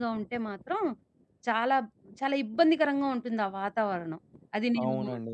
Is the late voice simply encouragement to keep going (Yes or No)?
No